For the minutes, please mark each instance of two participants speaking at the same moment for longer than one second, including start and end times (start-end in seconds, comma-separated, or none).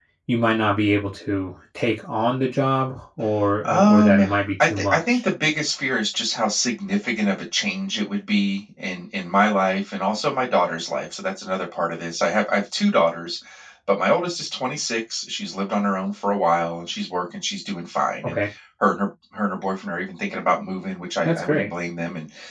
3.6-5.2